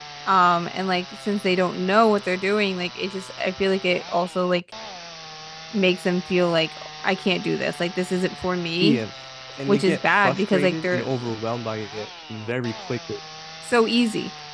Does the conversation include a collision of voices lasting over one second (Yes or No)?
Yes